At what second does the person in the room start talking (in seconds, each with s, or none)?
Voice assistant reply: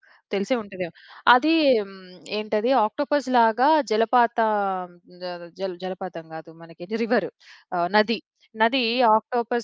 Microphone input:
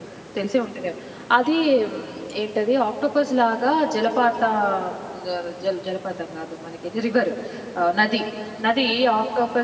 none